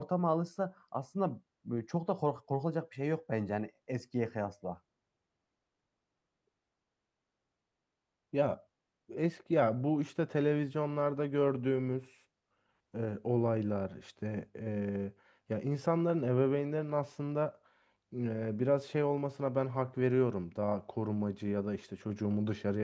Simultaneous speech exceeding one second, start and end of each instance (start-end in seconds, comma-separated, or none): none